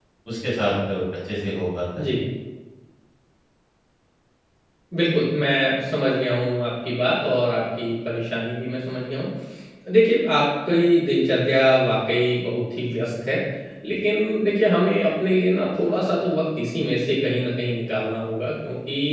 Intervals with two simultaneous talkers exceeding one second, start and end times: none

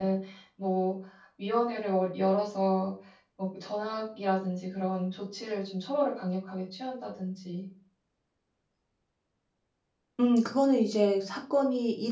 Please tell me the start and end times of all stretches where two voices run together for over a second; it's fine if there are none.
none

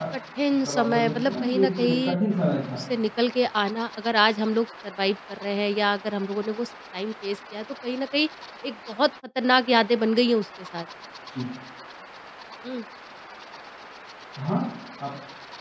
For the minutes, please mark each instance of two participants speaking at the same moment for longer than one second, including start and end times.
0.6-2.2

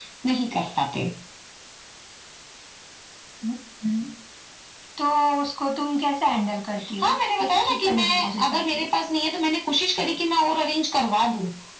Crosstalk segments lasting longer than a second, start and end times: 7.0-8.9

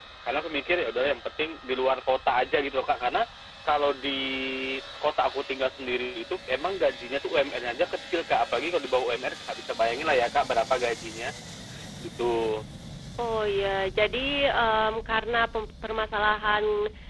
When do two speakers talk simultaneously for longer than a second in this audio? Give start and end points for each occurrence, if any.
none

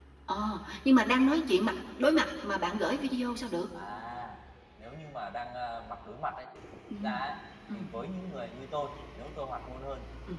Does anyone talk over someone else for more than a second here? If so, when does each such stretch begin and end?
none

